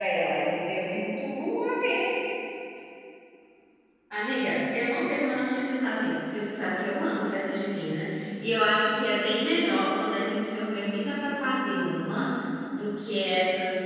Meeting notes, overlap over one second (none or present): none